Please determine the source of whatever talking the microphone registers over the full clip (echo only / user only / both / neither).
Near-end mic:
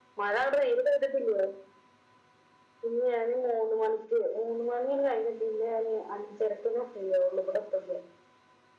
echo only